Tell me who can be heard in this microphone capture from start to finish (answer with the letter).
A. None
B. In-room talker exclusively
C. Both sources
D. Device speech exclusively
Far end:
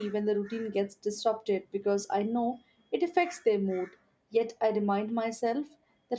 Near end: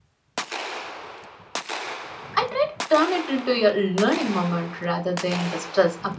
B